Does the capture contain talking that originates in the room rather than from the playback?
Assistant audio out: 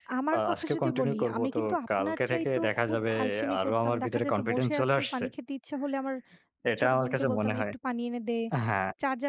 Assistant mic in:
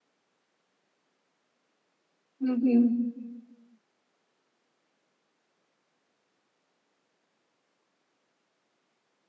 Yes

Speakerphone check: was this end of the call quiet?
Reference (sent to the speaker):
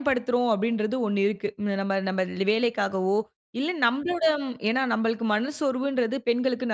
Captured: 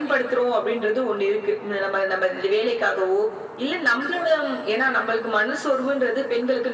Yes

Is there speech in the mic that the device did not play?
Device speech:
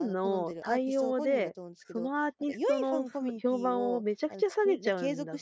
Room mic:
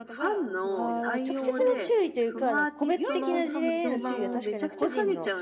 Yes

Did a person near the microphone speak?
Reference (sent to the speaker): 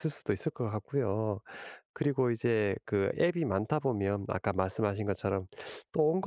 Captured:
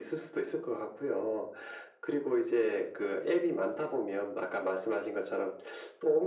No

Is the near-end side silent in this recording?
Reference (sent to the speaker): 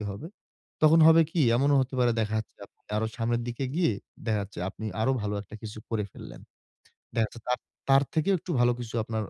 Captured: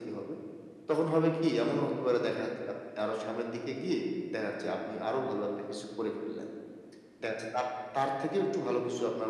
Yes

